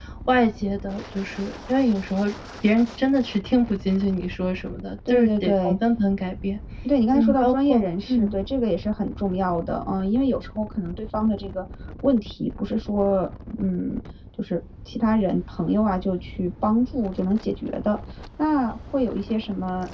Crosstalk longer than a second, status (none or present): present